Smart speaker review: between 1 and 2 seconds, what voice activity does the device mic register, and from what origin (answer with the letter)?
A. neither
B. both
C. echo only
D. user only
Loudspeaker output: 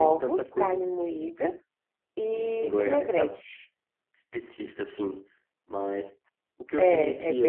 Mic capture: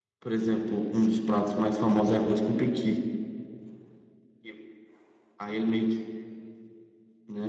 D